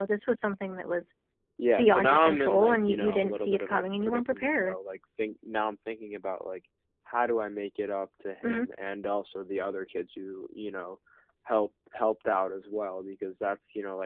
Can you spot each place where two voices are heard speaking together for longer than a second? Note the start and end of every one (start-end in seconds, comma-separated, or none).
1.8-4.8